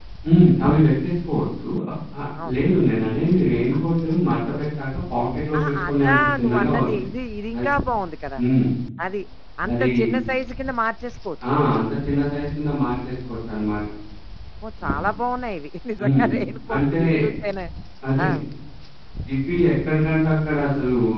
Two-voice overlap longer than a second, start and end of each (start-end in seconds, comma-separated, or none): 5.6-7.0